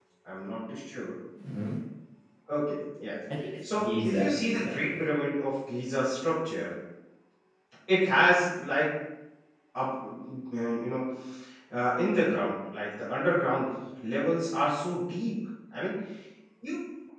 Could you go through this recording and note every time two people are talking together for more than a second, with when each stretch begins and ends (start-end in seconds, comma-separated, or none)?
3.7-5.0